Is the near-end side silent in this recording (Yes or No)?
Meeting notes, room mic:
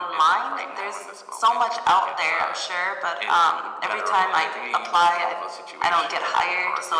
Yes